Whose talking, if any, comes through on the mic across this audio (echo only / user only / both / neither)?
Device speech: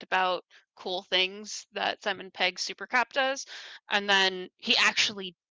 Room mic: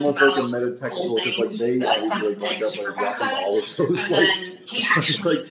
both